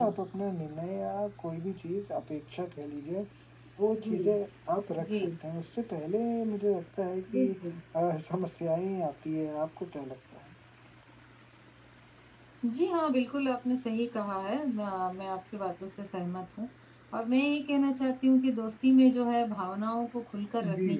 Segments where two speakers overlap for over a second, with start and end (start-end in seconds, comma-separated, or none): none